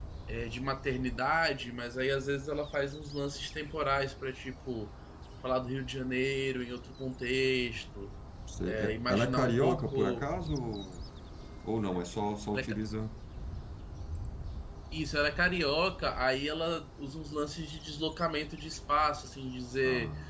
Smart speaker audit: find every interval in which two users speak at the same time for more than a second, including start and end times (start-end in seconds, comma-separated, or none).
8.7-10.2